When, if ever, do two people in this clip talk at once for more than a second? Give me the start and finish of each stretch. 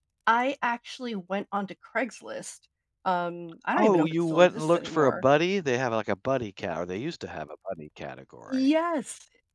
3.8-5.2

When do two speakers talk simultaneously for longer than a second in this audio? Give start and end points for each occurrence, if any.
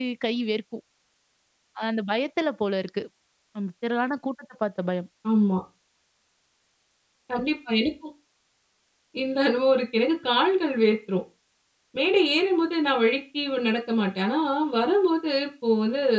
none

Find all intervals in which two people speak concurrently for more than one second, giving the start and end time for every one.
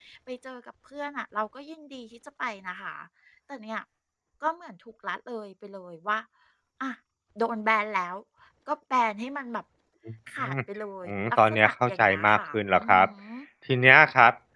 11.0-13.1

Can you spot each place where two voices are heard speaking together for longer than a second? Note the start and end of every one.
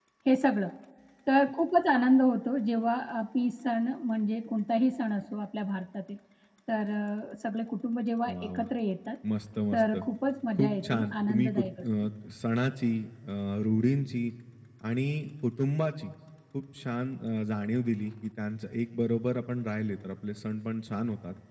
10.6-11.8

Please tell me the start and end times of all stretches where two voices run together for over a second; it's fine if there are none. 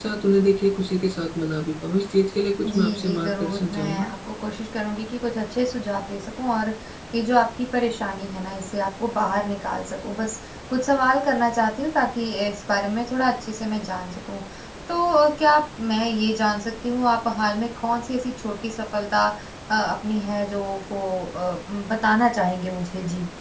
2.6-4.1

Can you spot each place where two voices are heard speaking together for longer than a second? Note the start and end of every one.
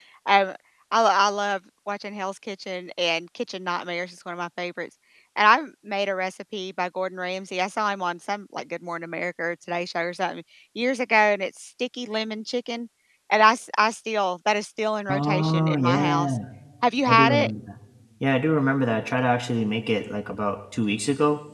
15.1-16.3

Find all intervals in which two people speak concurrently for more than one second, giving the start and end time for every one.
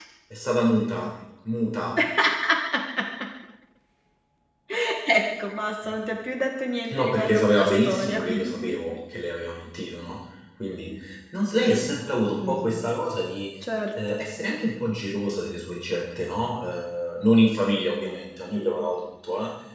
6.9-8.8

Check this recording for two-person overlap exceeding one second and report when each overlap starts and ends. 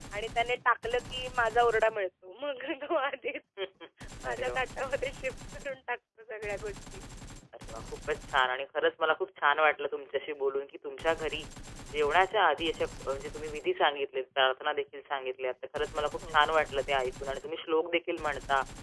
none

